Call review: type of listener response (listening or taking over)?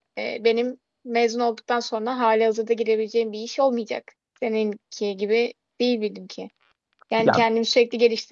listening